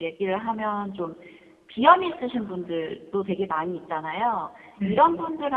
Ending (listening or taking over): listening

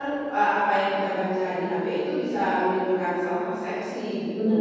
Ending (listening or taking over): taking over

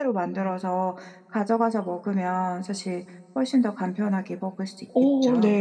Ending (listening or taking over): taking over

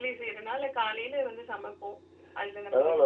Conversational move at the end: taking over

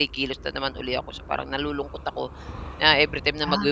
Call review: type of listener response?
listening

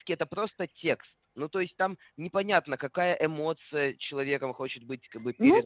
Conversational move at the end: taking over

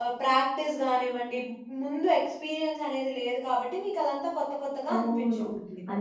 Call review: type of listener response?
taking over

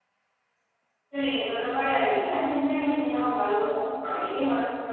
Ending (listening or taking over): listening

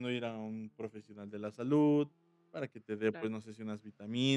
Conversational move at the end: listening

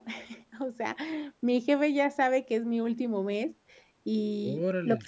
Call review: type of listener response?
listening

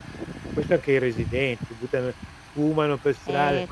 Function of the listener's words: taking over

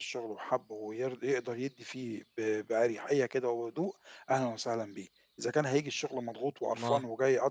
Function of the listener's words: listening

